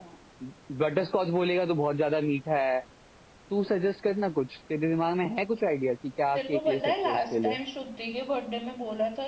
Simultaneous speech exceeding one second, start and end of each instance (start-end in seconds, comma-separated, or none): 6.3-7.5